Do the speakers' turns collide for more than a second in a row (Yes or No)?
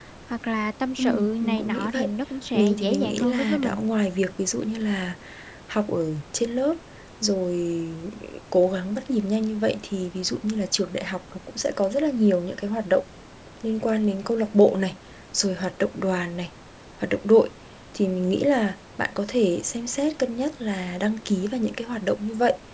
Yes